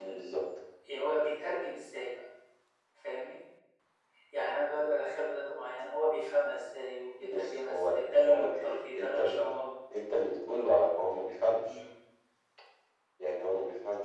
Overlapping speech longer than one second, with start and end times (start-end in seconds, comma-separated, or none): 7.2-9.4